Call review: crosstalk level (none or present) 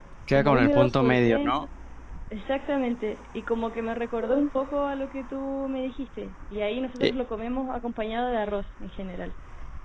present